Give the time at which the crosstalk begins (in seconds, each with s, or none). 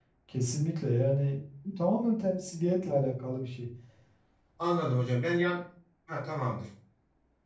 none